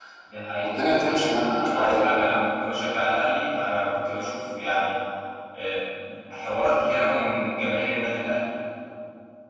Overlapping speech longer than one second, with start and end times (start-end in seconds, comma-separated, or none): 0.6-2.2